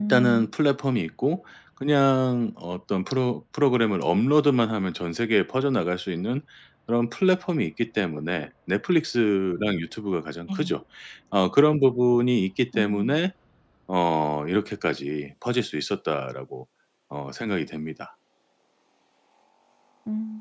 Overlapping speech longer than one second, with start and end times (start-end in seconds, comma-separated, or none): none